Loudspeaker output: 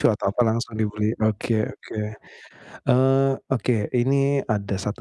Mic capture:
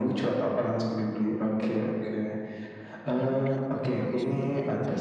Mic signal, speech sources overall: both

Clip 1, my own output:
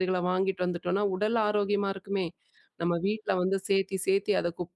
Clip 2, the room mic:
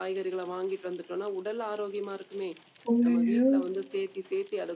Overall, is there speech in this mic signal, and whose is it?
both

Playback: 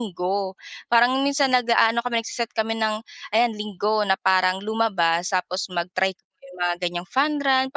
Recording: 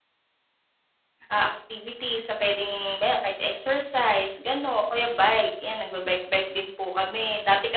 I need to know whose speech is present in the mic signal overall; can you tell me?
user only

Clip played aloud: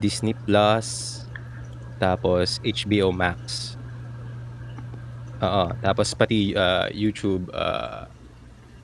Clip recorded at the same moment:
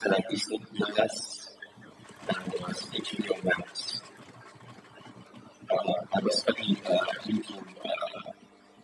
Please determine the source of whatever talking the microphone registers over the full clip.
echo only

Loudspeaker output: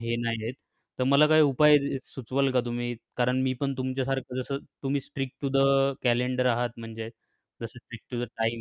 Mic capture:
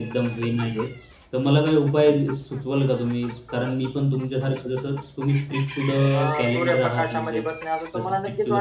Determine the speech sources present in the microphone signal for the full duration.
both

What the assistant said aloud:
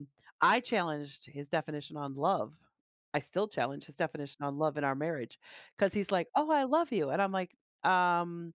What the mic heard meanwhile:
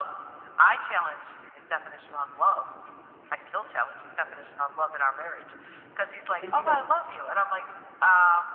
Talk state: both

